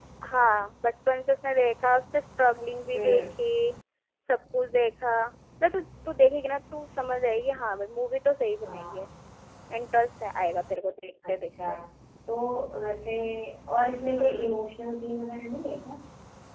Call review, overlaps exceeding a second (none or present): none